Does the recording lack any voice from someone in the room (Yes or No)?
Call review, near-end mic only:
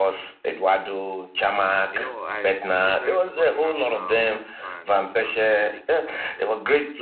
No